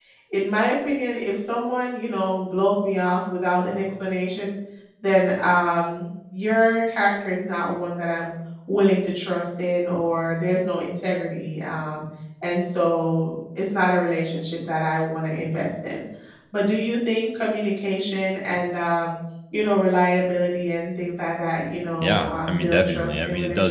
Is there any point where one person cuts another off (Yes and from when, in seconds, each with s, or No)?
Yes, from 22.0 s